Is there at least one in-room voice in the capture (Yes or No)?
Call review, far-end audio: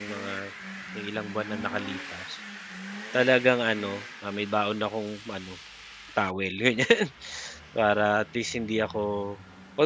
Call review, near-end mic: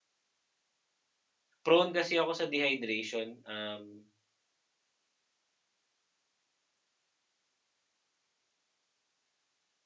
Yes